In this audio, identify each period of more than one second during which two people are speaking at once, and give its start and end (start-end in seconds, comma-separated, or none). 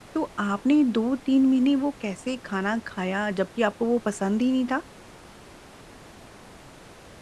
none